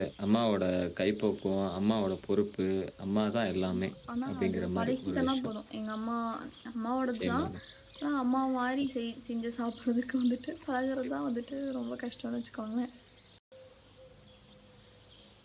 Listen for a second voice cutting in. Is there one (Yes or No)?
Yes